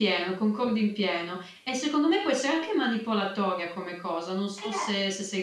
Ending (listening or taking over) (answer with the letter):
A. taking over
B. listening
A